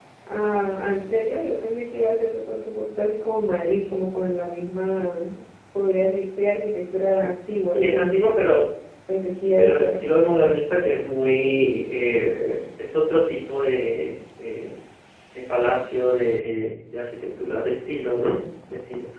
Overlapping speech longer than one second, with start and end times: none

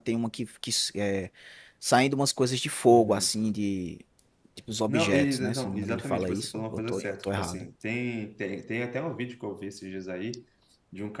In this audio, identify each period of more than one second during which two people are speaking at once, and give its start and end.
4.9-7.7

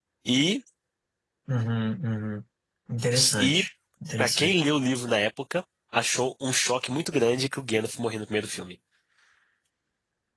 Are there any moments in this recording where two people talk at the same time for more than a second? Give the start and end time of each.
none

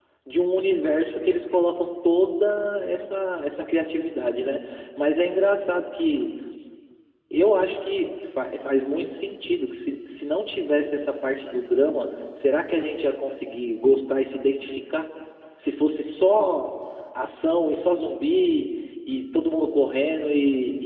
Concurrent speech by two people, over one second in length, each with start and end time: none

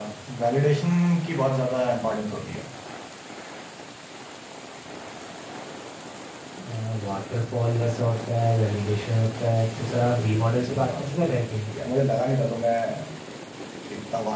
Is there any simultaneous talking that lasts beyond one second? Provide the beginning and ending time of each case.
9.9-11.6

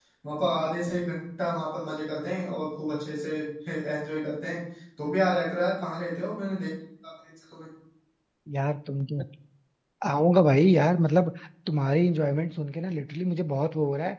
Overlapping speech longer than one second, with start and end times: none

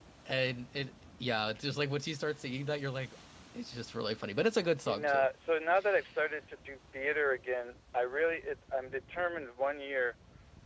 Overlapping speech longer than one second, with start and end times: none

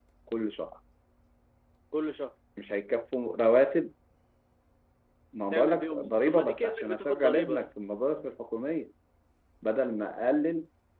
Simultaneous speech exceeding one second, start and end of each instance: 5.5-7.6

